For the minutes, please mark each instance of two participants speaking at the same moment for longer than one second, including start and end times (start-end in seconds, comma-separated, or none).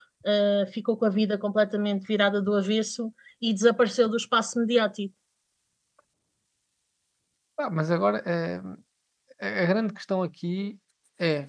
none